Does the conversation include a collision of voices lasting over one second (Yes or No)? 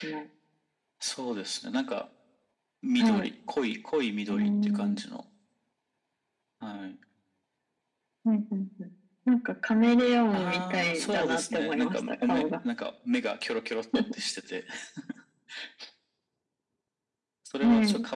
Yes